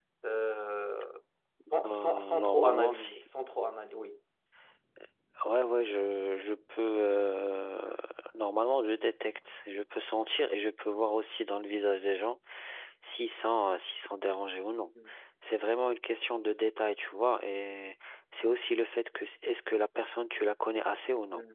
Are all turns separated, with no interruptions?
No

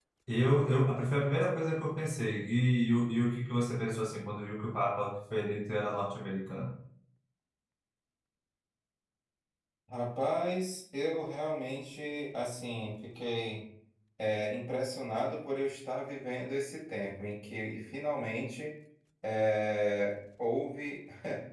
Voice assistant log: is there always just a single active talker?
Yes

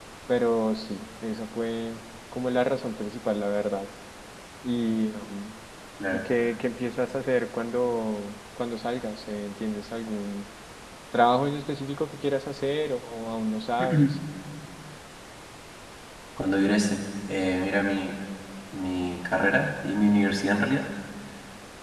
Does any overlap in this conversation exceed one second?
No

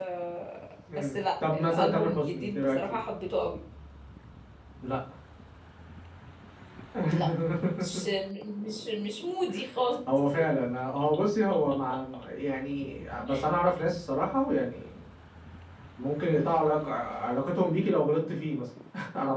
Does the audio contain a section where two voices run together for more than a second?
Yes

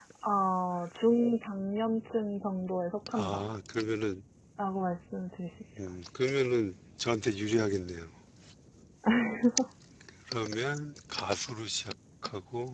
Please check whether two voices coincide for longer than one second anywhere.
No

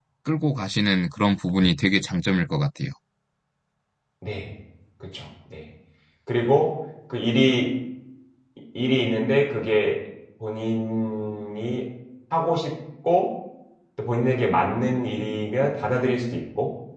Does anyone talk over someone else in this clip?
No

